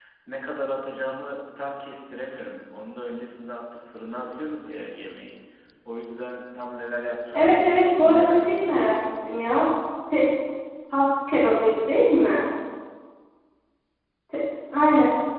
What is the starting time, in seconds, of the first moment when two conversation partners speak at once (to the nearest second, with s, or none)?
7 s